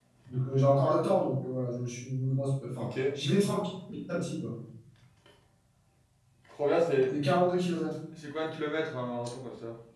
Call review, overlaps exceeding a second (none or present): none